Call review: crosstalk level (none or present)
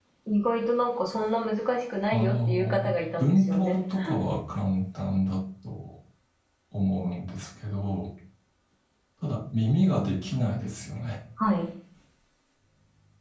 present